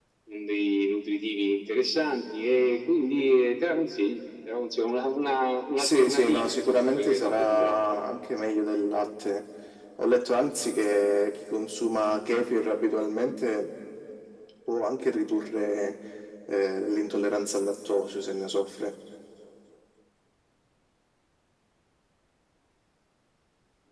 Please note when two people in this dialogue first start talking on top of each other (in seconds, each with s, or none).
5.7 s